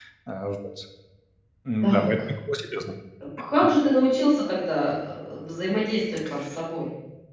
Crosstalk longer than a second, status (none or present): none